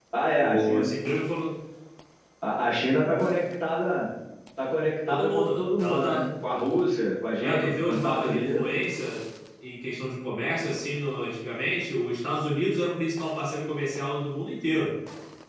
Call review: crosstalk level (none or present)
present